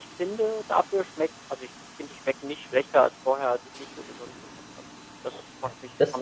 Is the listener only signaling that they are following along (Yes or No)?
No